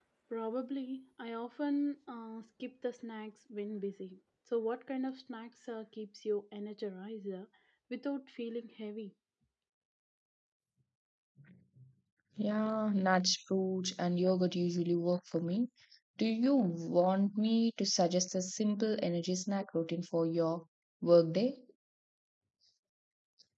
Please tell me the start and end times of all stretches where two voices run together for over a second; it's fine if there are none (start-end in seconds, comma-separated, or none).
none